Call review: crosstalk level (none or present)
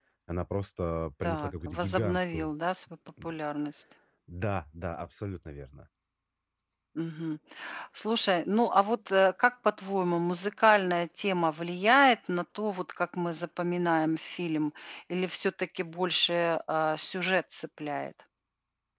present